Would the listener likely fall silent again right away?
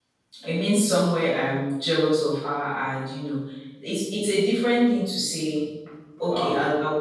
Yes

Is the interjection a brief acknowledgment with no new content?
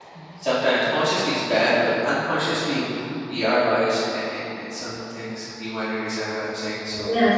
No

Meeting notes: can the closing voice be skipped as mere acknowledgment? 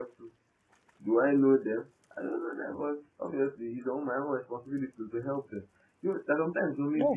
Yes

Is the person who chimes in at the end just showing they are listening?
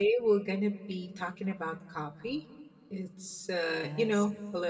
Yes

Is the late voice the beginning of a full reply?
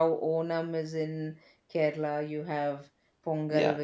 Yes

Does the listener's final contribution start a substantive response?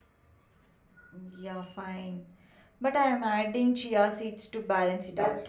Yes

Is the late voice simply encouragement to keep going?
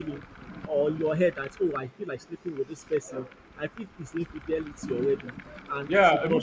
No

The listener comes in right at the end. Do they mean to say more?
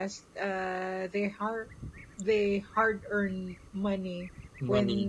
No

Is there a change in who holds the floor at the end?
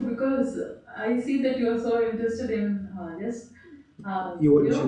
No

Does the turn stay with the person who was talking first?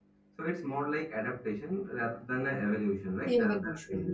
No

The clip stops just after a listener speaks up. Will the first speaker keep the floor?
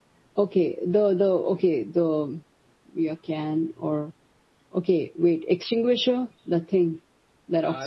No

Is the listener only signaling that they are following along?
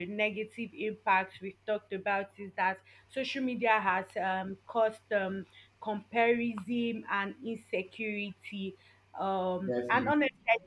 Yes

